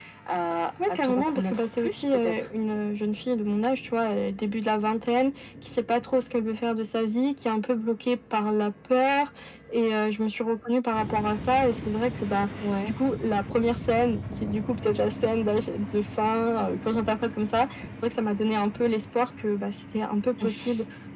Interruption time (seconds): 1 s

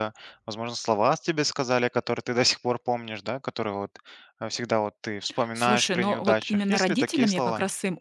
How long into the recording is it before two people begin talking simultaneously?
6 s

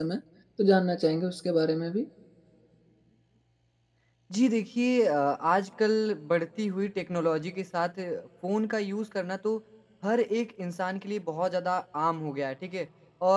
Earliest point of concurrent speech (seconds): none

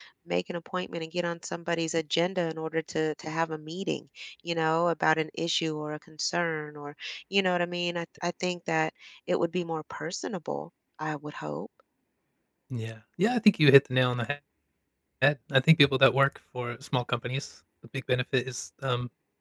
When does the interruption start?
none

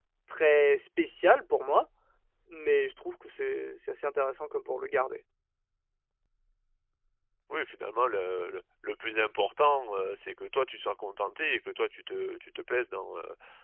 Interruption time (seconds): none

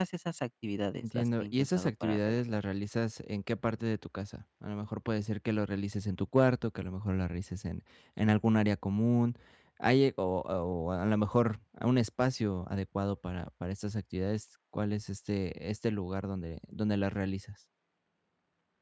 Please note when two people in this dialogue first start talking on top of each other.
1 s

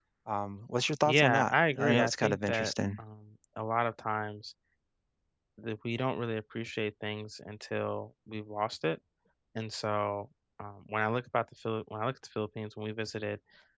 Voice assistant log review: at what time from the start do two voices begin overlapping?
1 s

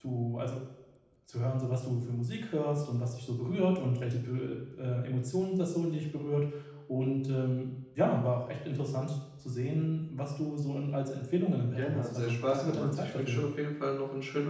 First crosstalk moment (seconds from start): 12 s

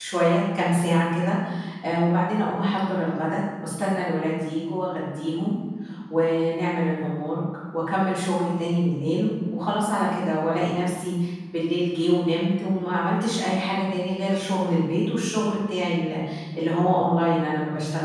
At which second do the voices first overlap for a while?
none

